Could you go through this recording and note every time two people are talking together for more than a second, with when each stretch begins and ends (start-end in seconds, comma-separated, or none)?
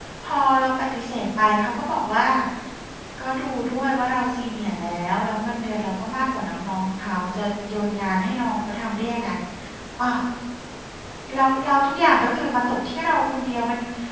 none